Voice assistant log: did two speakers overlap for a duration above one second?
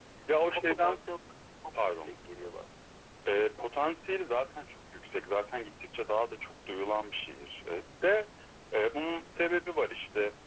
No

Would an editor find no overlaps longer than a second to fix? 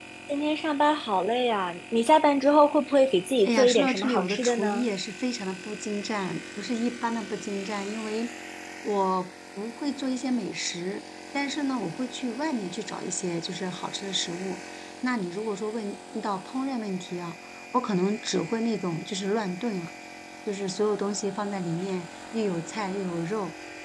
No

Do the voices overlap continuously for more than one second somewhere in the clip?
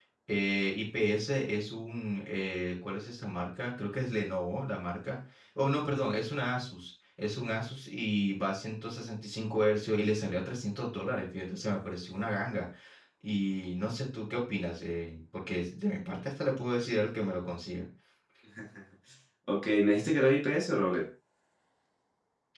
No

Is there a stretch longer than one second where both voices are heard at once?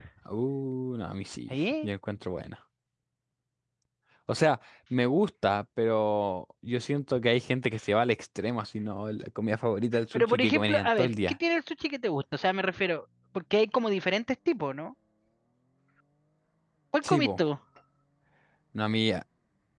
Yes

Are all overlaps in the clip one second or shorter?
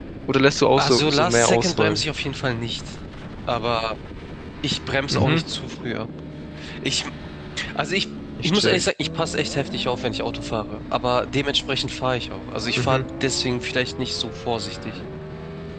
No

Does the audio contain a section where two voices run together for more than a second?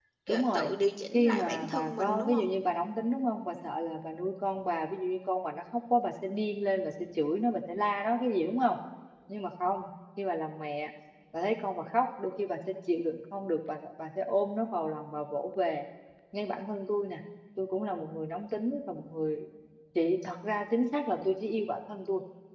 Yes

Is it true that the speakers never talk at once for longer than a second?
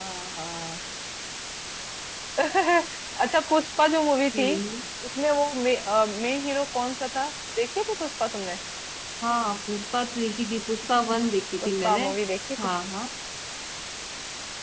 Yes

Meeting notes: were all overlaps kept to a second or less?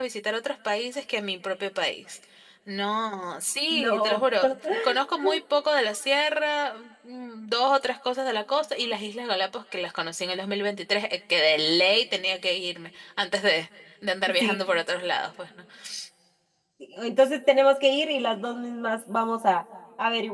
Yes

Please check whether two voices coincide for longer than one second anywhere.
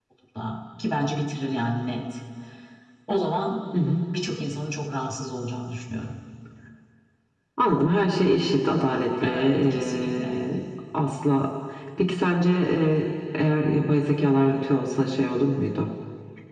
Yes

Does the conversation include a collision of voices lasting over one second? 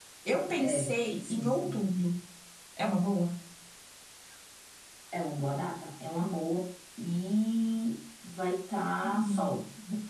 Yes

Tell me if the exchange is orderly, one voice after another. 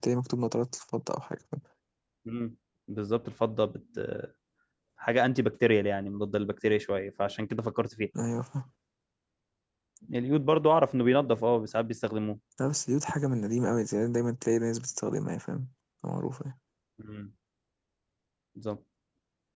Yes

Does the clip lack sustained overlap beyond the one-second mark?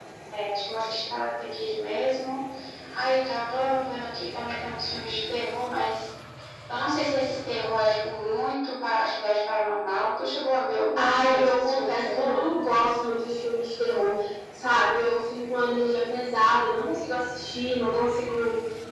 No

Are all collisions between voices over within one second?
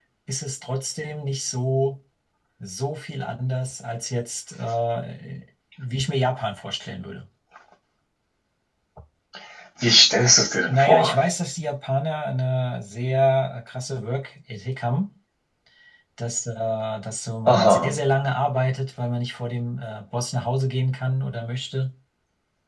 Yes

